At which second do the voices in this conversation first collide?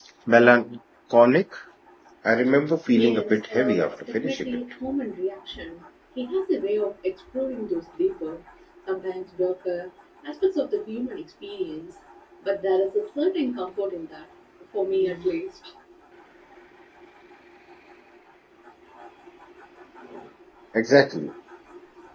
2.9 s

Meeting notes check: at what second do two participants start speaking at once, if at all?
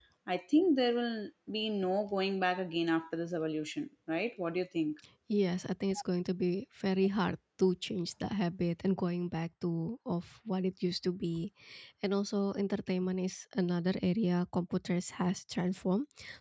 none

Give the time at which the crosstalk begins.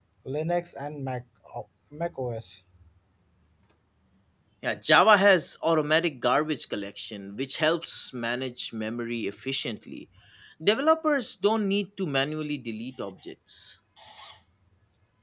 none

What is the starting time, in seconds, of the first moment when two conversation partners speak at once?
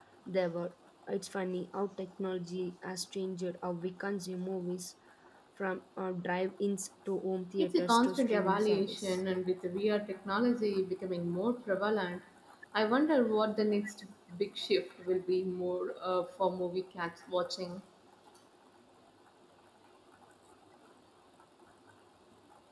7.6 s

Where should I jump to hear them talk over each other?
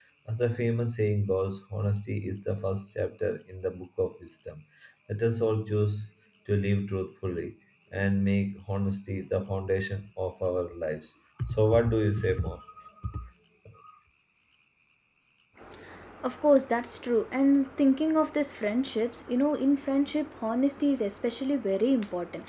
none

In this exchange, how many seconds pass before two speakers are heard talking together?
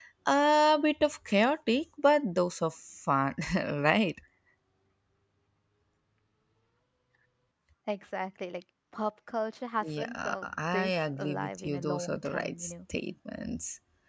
9.8 s

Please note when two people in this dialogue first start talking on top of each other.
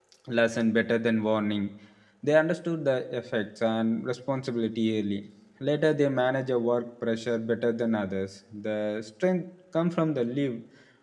none

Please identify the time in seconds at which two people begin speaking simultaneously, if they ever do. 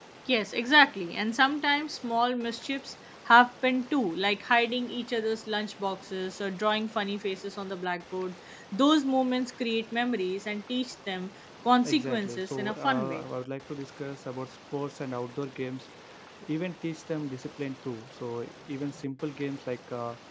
11.8 s

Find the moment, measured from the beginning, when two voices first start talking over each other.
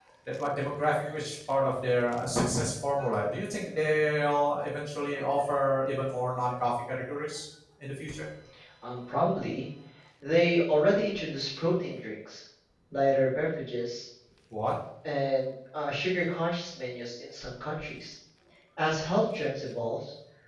none

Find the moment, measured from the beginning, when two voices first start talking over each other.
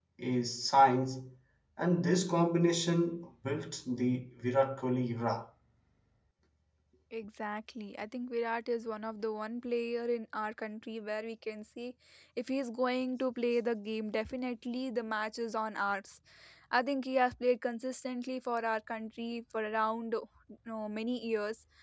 none

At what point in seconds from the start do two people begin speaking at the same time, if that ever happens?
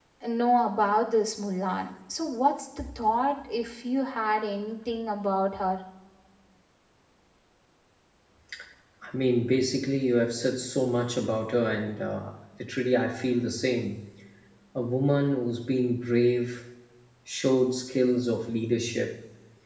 none

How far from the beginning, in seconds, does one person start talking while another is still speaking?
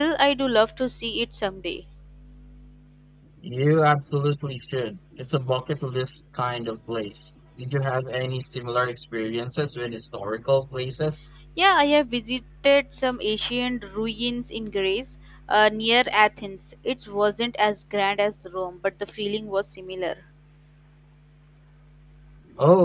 none

